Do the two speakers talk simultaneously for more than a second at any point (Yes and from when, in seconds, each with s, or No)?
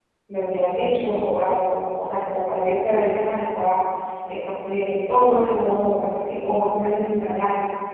No